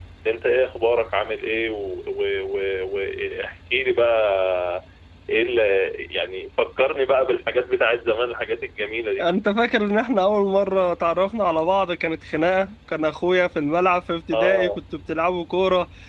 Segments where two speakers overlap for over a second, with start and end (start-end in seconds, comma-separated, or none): none